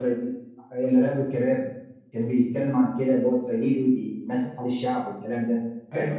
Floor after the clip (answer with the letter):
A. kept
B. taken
A